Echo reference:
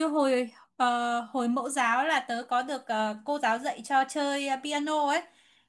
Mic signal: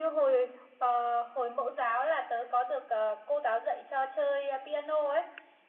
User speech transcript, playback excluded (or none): none